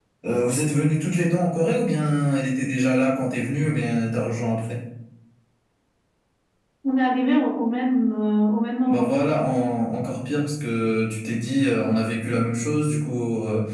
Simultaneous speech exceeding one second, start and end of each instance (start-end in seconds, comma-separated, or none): none